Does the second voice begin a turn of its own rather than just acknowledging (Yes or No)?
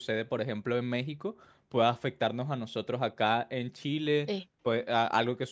No